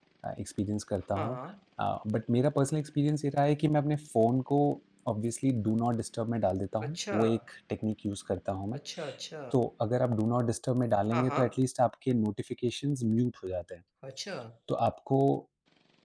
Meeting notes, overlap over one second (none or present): none